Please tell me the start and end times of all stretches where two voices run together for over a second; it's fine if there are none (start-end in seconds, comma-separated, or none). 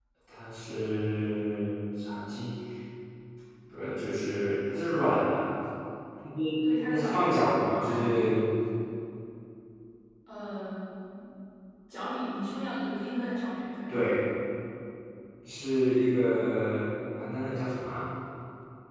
6.9-8.2